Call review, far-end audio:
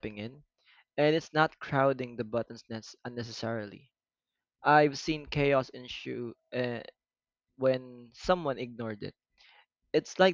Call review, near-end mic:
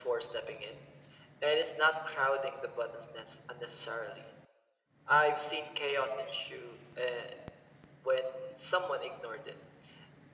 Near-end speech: none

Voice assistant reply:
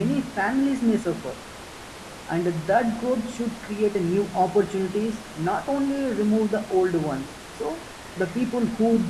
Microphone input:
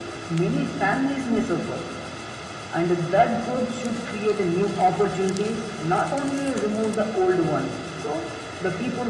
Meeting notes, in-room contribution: none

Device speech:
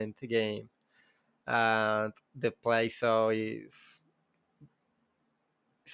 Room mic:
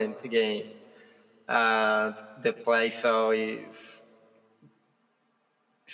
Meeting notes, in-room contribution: none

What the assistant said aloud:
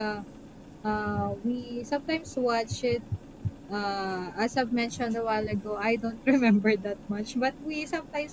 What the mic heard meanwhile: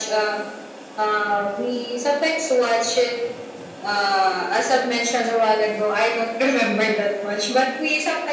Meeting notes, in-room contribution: none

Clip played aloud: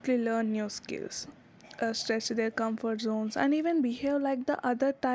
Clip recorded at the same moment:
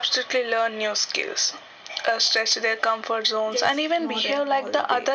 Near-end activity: present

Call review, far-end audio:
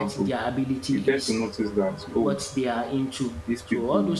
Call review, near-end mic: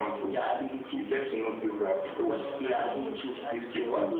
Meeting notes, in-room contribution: present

